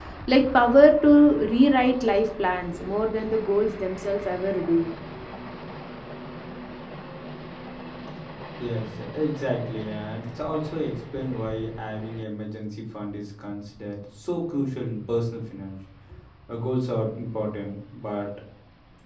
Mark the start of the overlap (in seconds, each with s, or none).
none